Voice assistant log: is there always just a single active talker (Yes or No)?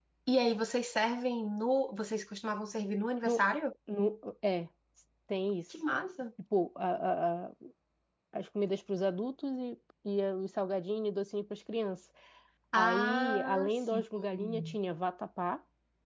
No